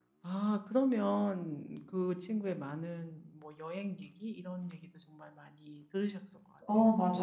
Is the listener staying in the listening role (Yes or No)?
No